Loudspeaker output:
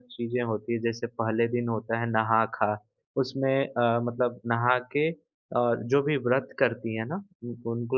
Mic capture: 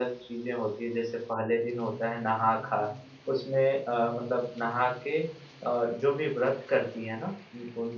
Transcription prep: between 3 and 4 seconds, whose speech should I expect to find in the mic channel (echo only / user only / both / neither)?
echo only